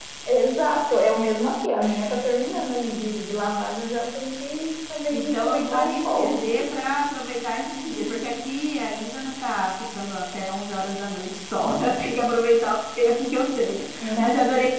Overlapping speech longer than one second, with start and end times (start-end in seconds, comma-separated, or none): 5.1-6.4